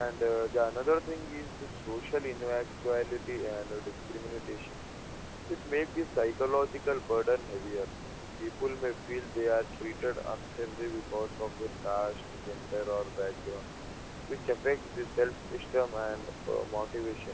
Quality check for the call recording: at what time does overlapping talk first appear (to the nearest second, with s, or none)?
none